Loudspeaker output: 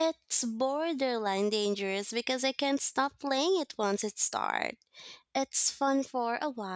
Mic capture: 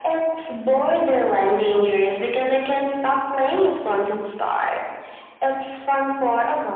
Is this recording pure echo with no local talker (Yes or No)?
Yes